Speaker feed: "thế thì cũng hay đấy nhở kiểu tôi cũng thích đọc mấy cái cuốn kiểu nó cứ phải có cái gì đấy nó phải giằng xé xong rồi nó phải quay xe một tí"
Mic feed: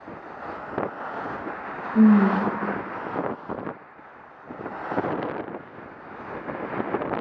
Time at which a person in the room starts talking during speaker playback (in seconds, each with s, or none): 1.9 s